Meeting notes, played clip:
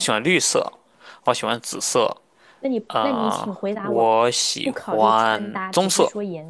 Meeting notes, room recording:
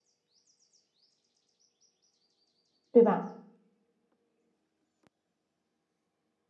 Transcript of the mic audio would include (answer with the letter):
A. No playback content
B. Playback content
A